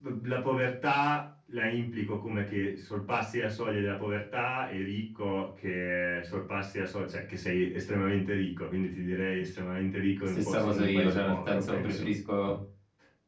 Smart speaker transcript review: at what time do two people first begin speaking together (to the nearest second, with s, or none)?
10 s